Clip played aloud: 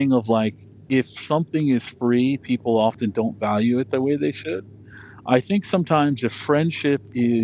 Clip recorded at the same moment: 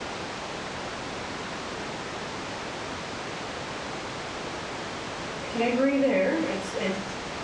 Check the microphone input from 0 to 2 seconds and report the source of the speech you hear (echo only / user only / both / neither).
neither